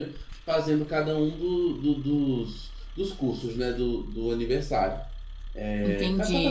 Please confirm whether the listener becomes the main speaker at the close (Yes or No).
Yes